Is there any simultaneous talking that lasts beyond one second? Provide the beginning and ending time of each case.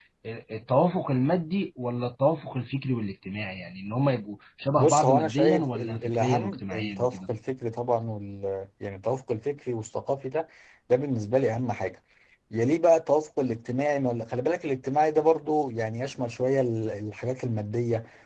4.8-7.3

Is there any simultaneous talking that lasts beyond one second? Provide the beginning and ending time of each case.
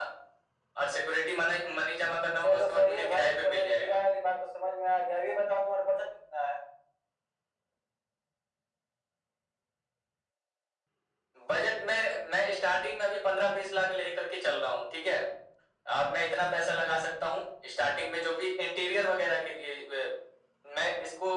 2.4-4.0

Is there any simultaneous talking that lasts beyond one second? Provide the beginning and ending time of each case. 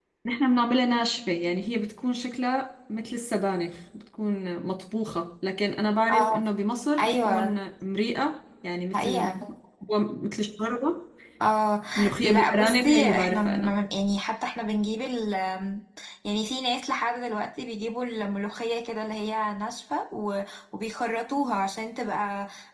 12.2-13.7

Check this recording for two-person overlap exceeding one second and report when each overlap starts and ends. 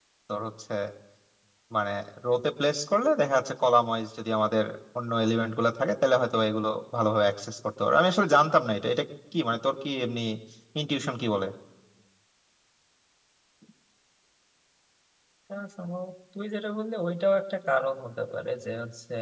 none

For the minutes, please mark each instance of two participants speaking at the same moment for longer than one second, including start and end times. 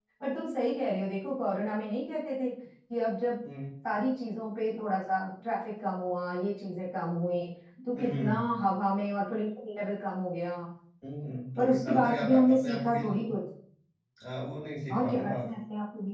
11.6-13.3

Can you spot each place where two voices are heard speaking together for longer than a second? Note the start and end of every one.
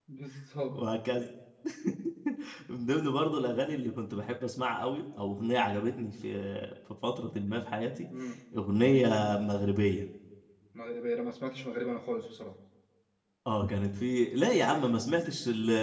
none

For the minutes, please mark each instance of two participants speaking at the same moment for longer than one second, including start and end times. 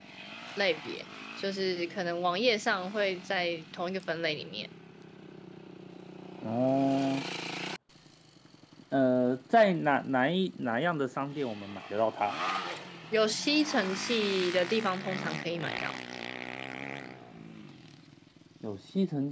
none

